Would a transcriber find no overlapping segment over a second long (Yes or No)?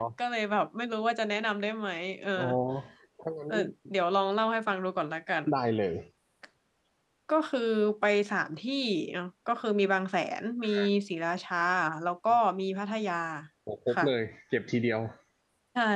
Yes